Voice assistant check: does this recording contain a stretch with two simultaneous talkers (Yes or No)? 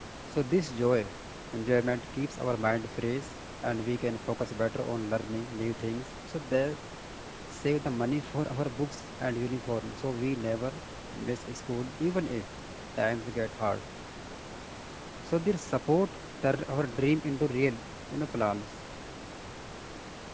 No